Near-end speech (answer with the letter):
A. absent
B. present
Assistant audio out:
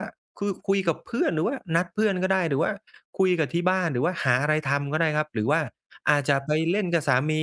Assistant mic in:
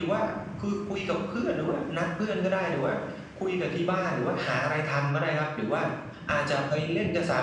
A